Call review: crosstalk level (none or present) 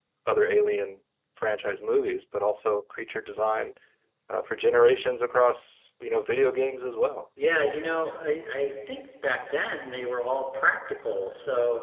none